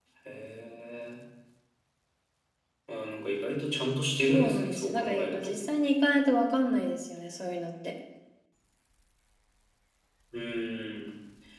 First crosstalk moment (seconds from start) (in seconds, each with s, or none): 4.3 s